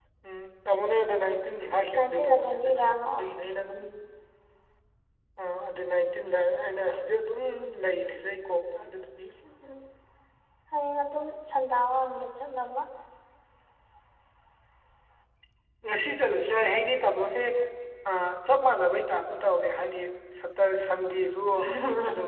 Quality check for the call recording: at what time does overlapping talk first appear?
1.9 s

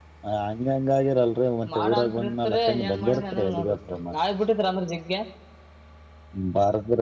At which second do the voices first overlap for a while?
1.6 s

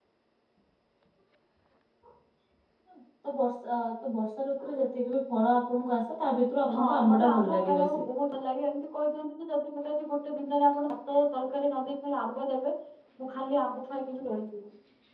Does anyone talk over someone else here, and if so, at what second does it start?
6.7 s

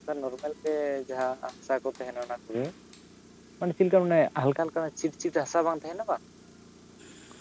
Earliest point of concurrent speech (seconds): none

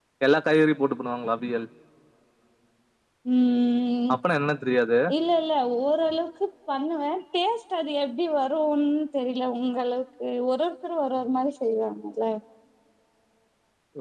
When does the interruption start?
none

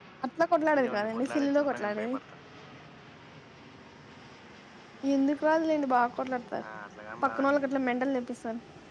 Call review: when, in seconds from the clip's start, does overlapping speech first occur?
0.8 s

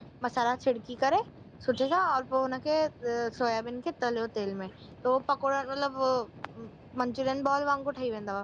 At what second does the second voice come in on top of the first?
none

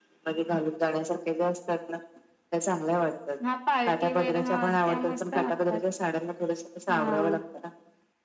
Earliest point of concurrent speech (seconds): 3.9 s

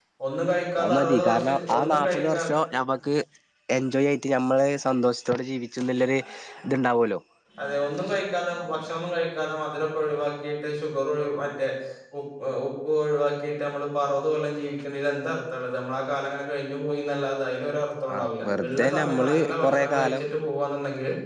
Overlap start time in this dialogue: 0.8 s

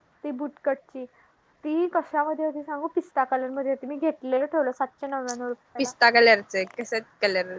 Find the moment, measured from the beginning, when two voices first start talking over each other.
none

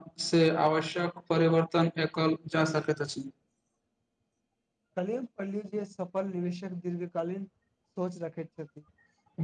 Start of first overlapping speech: none

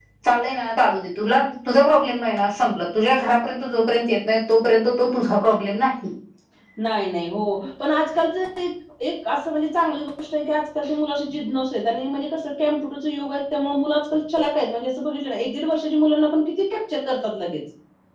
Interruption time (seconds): none

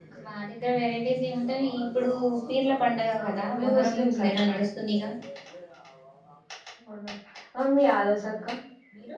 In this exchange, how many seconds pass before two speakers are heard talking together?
3.2 s

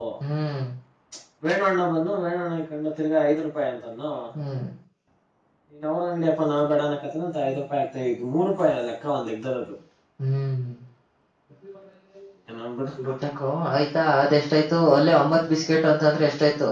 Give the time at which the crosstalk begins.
none

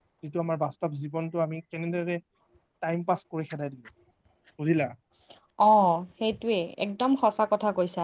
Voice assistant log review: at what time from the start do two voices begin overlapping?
none

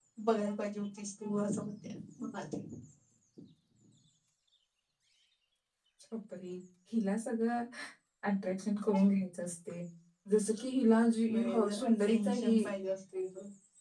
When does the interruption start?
11.3 s

